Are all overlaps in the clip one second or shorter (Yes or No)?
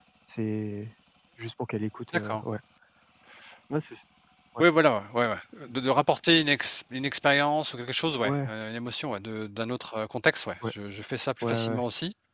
Yes